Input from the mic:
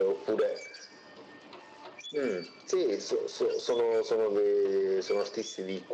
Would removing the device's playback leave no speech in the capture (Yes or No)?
Yes